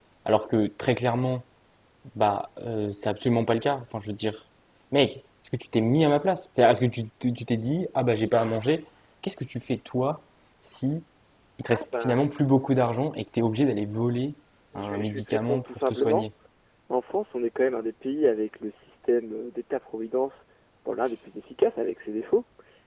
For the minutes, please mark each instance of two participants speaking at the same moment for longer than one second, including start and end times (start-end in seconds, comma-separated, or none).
14.8-16.3